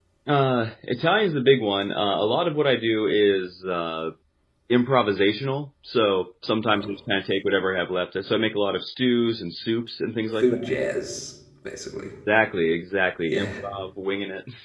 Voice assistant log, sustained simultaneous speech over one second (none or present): none